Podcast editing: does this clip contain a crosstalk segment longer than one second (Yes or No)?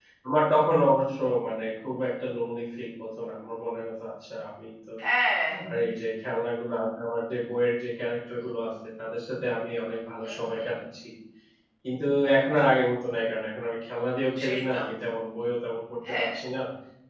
No